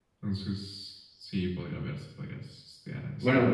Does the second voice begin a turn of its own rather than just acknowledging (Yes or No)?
Yes